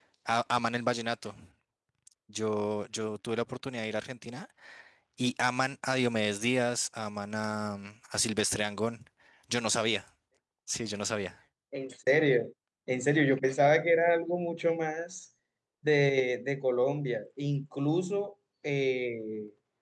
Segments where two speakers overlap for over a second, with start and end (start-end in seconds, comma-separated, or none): none